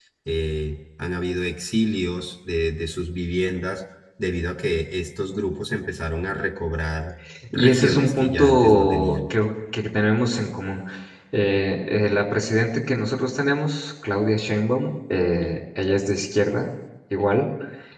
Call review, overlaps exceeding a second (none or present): present